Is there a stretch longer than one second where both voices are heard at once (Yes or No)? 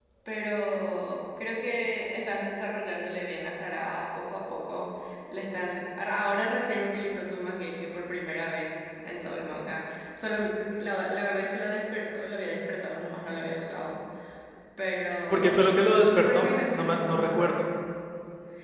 Yes